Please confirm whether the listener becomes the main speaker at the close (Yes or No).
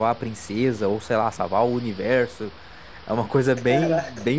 No